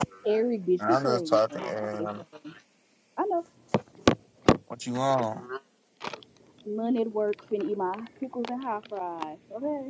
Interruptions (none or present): present